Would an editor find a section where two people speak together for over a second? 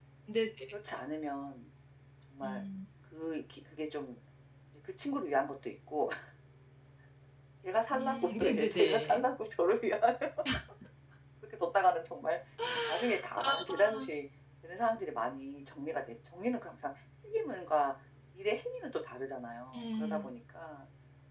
Yes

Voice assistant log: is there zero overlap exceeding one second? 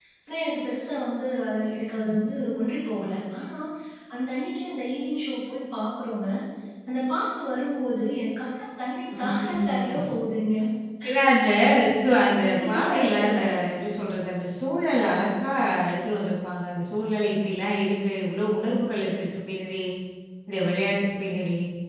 No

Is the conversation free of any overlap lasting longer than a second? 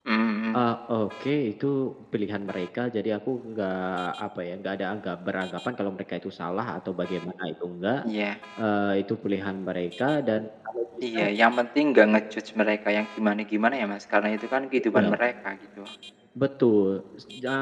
Yes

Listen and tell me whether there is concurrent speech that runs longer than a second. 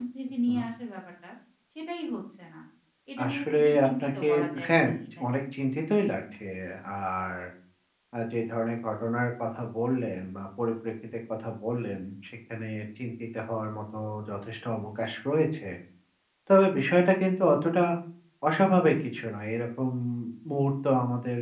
Yes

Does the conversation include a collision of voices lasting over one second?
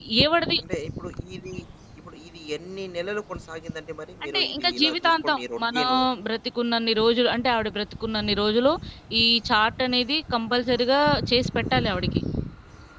Yes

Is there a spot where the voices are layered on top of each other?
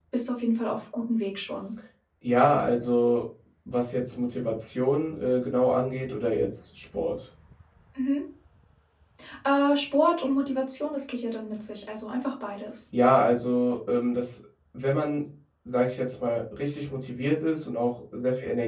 No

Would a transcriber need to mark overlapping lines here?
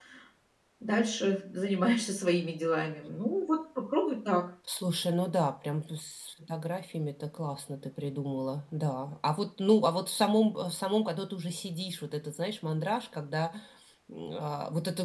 No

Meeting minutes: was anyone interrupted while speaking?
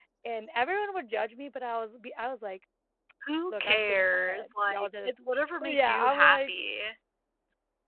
Yes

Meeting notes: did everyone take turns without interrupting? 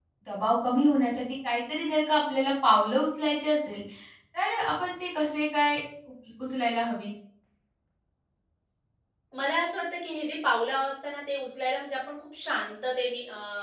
Yes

